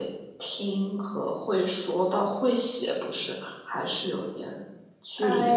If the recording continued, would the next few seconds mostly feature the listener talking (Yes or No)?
Yes